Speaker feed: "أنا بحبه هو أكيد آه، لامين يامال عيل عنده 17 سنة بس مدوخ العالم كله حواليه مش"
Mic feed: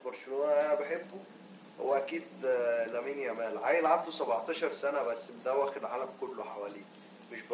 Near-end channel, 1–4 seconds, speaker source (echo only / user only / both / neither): echo only